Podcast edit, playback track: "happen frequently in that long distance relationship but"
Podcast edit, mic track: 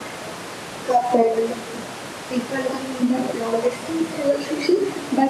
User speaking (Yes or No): No